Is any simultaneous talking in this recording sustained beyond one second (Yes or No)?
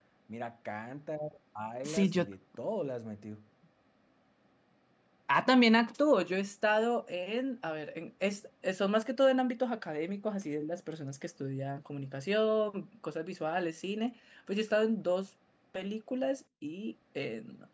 No